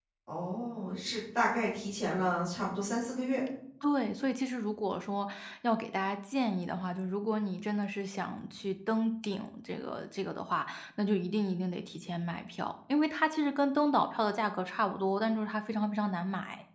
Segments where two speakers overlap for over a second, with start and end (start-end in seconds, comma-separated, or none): none